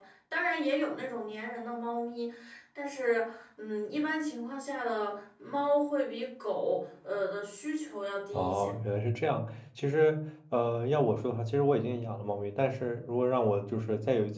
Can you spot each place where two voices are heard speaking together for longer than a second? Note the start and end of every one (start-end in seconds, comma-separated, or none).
none